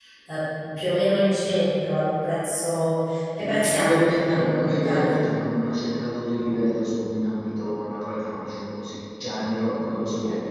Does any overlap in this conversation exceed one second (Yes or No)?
Yes